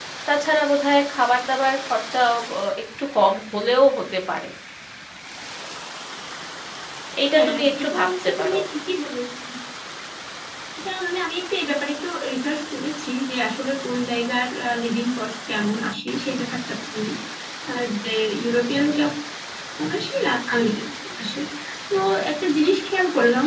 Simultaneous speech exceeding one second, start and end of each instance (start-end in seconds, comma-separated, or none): 7.3-8.6